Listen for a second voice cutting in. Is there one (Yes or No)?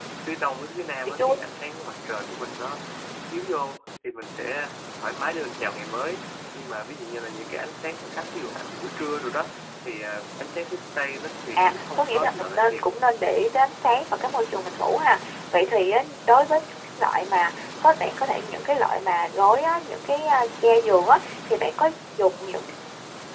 Yes